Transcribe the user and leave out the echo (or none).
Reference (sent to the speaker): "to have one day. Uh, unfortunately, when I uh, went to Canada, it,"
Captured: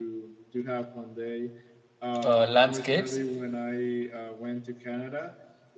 uh, landscapes